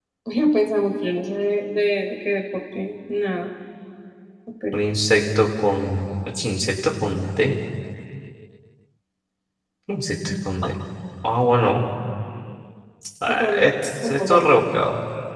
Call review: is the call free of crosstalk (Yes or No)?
No